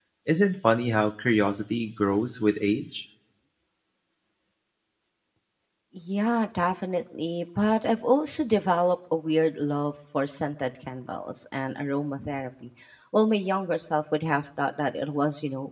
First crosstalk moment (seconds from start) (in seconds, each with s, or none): none